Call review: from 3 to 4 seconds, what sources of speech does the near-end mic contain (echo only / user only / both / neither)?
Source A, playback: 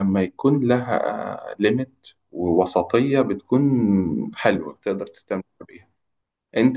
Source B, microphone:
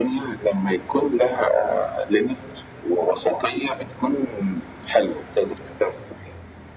echo only